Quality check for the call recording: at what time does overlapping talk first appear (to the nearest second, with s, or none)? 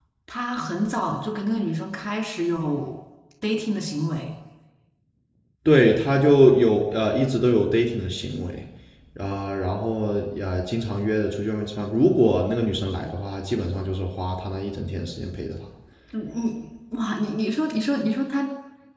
none